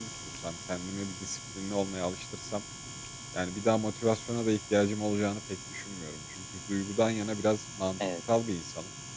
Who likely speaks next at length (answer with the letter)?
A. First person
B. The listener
A